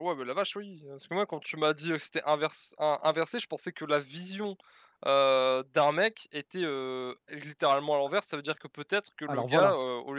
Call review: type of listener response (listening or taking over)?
listening